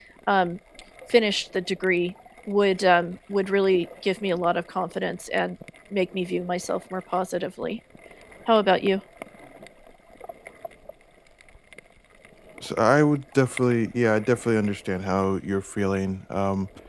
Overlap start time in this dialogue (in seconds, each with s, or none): none